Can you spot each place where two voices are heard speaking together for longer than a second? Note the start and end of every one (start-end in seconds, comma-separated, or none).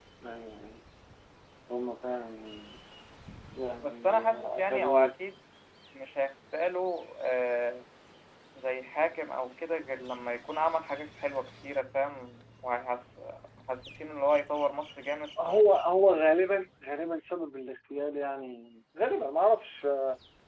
3.8-5.1